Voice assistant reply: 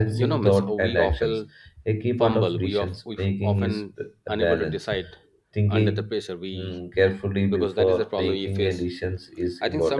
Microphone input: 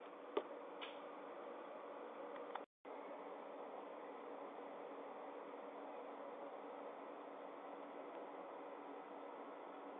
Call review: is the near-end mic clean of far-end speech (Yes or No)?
Yes